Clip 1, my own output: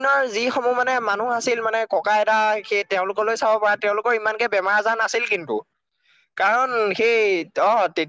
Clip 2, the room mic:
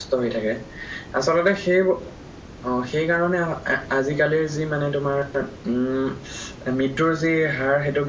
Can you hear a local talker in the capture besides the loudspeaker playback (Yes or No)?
Yes